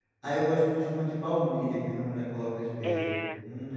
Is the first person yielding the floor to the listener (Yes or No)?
Yes